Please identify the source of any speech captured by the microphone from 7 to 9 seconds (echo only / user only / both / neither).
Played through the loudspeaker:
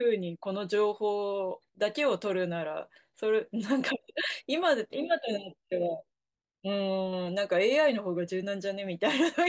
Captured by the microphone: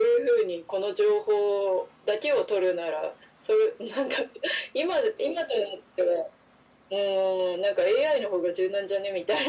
echo only